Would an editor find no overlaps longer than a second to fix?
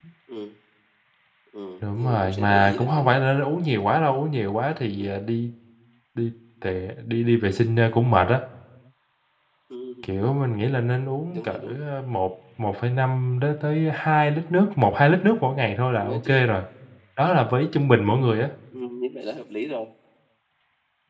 No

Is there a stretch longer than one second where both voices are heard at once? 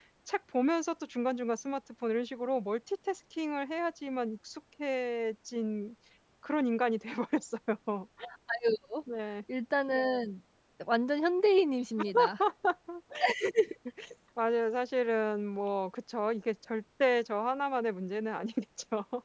No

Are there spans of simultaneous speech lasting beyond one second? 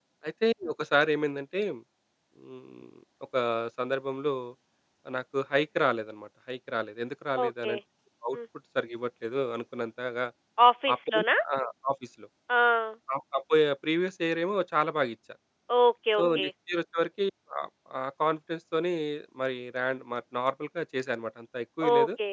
No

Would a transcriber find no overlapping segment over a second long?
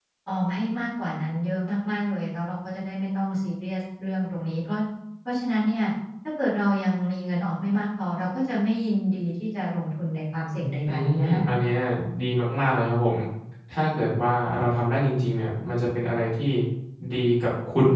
Yes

